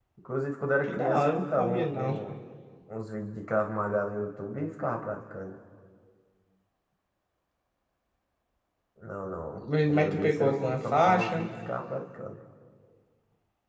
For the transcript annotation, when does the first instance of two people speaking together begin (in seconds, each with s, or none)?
0.8 s